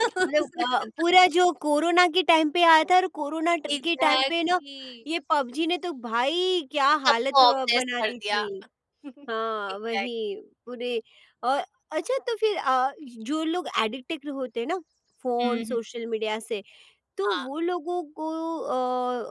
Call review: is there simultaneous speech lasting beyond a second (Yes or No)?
Yes